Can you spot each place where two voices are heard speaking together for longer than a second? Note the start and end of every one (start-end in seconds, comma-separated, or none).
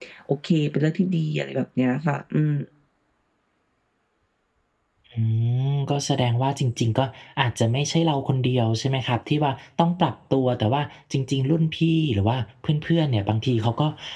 none